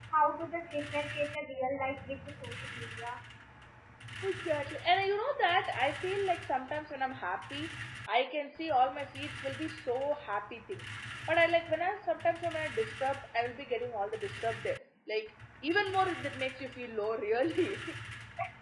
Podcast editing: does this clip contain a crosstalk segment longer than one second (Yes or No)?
No